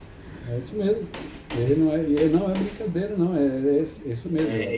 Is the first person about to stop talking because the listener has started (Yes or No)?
Yes